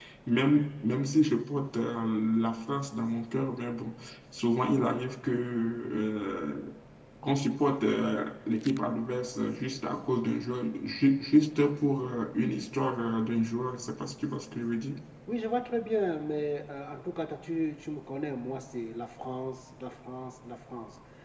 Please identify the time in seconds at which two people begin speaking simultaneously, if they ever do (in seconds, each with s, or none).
none